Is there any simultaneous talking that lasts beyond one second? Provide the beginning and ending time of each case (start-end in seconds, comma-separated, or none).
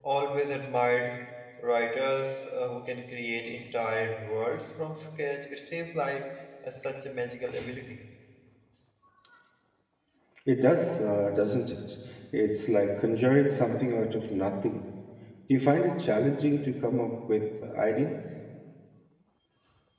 none